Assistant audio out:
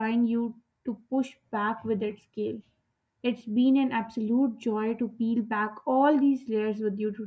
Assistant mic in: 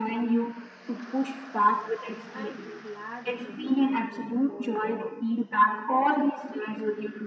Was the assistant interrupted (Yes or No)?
Yes